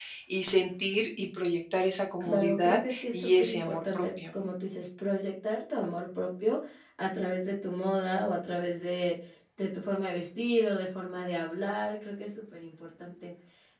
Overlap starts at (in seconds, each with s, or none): 2.2 s